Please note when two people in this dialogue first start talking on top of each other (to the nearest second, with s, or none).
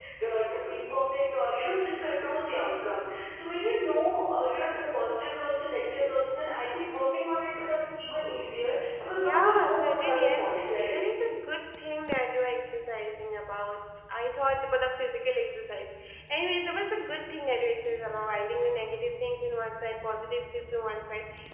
9 s